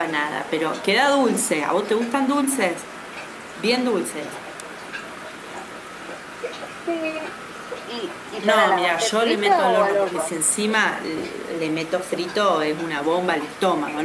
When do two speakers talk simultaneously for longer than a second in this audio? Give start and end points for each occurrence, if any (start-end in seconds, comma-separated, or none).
8.4-10.3